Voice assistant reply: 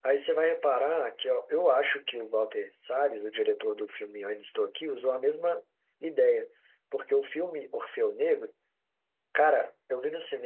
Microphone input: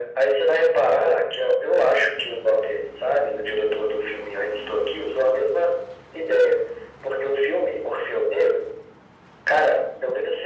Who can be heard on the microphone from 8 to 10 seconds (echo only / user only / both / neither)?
echo only